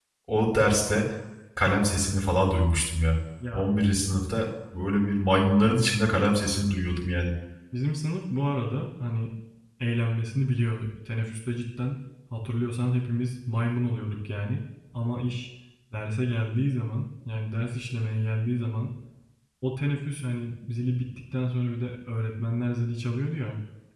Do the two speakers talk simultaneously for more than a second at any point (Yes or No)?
No